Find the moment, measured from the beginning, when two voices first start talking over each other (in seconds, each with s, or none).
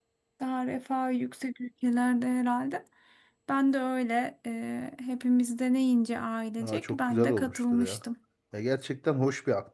6.6 s